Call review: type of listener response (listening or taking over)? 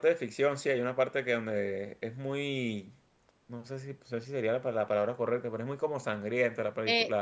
taking over